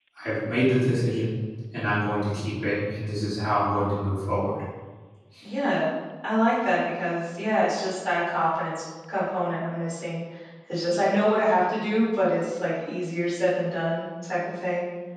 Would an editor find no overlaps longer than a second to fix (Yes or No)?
Yes